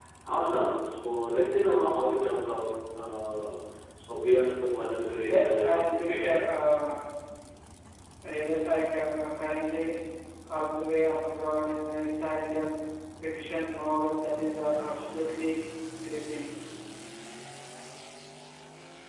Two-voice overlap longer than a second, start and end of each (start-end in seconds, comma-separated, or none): 5.2-6.4